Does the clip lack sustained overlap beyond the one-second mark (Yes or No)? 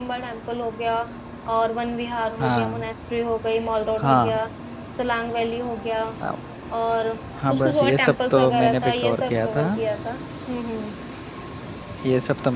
No